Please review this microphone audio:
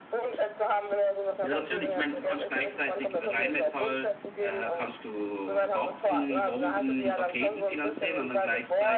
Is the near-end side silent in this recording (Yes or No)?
No